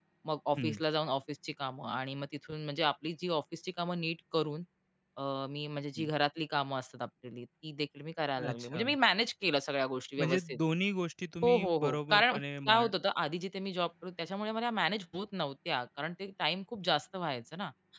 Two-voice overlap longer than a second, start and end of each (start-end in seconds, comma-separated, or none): 11.4-12.9